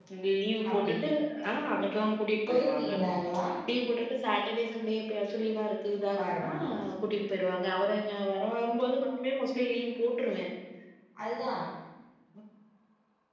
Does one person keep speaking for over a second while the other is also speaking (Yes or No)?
No